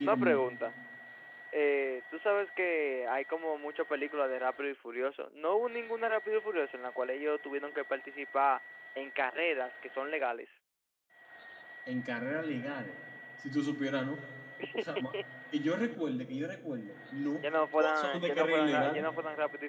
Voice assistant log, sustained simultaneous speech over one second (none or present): present